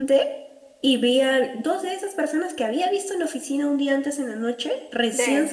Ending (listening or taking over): listening